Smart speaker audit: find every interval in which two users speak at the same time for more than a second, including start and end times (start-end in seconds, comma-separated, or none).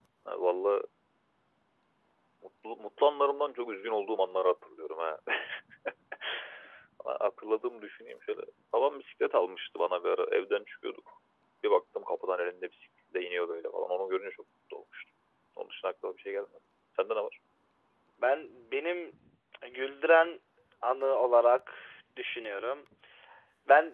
none